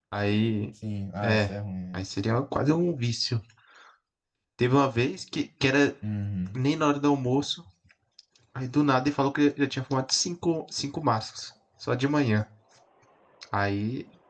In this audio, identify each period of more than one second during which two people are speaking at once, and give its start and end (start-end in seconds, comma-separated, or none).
none